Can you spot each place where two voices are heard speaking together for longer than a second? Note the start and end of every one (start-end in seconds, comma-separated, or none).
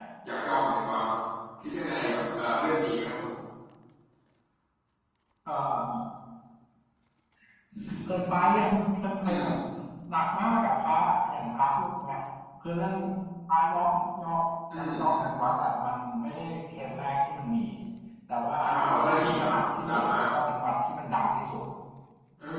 18.6-20.2